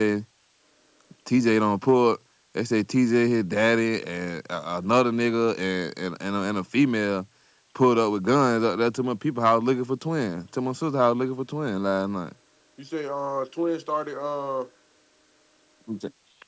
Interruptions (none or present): none